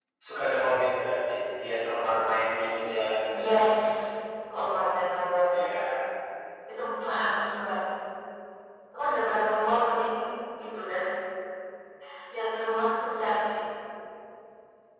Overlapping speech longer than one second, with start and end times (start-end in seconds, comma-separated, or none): none